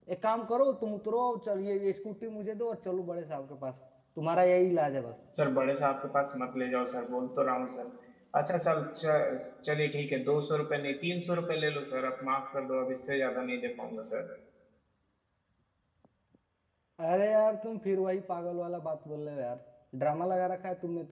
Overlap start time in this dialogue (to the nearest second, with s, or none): none